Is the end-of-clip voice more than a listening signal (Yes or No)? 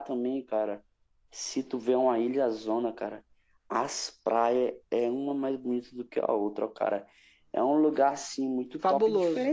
No